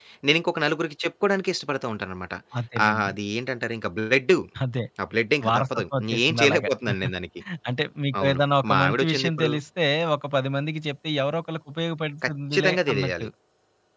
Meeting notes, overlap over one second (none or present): present